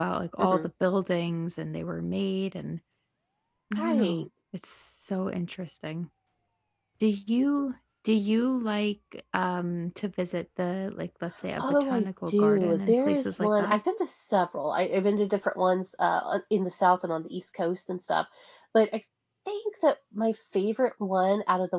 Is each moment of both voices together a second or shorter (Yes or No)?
No